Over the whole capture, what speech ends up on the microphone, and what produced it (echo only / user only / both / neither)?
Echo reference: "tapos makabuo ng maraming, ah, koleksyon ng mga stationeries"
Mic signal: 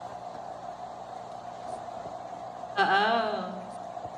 user only